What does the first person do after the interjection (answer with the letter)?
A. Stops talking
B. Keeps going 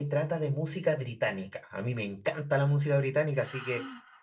B